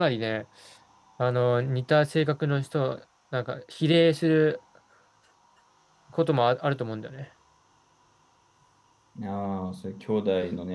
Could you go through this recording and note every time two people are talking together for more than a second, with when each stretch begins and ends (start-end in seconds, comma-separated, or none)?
none